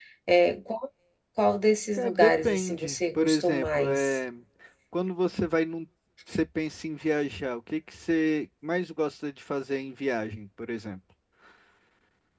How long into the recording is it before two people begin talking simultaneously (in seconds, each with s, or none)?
2.0 s